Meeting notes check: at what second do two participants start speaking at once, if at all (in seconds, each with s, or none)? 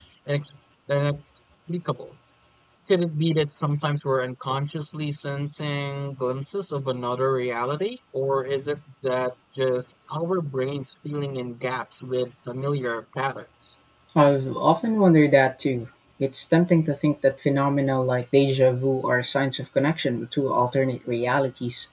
none